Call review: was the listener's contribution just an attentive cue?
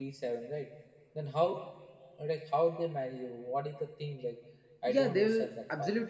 No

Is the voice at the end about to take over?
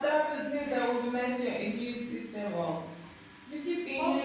No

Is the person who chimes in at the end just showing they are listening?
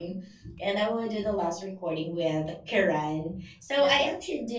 Yes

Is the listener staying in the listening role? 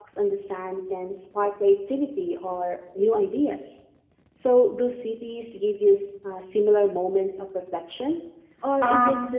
No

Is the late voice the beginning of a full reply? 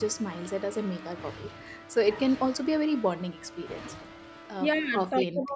Yes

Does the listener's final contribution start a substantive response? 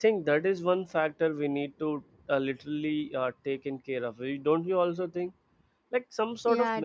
No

